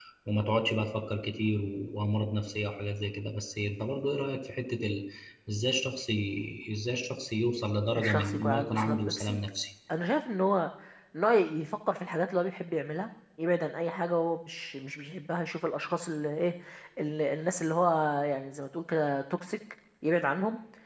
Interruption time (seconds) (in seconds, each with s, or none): 7.9 s